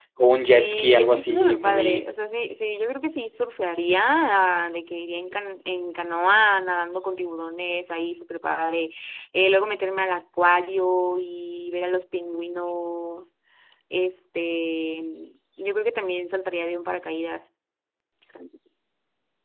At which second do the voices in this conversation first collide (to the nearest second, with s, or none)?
1 s